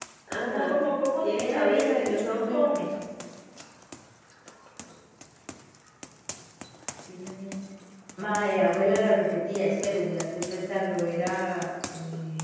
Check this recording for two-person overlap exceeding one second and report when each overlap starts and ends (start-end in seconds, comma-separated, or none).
1.2-2.6